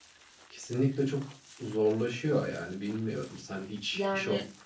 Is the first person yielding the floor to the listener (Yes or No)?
No